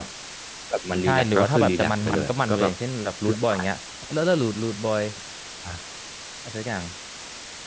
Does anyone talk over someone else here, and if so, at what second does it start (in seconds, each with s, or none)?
1.0 s